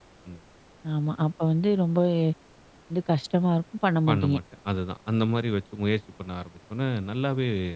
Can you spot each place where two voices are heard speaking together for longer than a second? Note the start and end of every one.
none

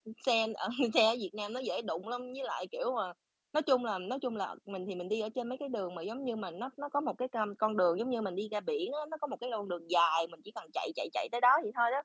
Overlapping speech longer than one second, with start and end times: none

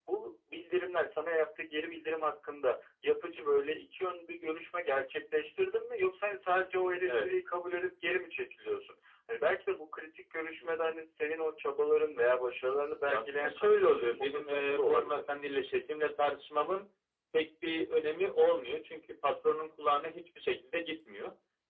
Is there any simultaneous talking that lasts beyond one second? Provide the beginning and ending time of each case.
13.1-15.2

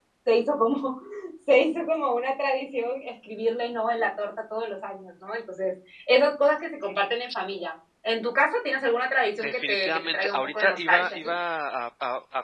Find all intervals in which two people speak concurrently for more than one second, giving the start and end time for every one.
9.3-11.3

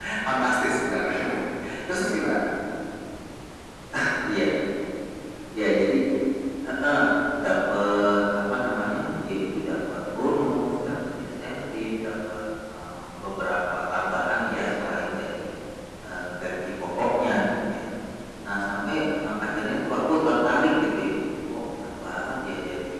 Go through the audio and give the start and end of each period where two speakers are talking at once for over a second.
none

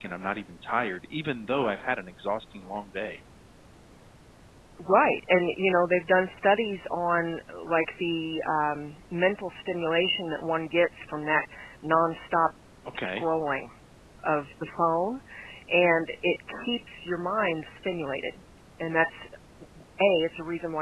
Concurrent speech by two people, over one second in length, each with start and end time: none

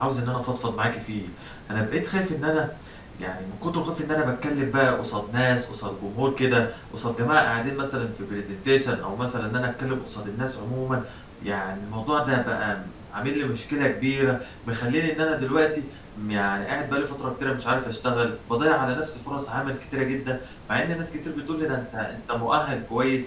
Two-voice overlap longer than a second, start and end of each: none

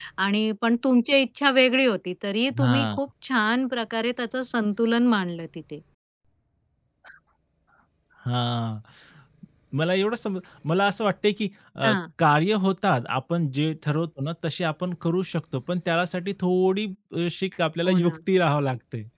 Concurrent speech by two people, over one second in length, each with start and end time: none

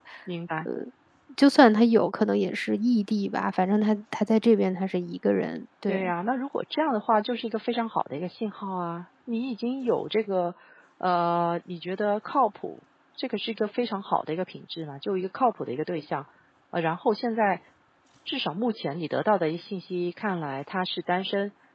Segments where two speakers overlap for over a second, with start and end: none

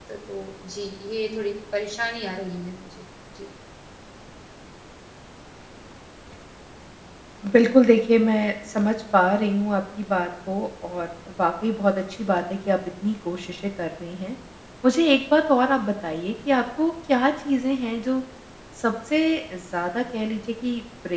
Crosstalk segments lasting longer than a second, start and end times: none

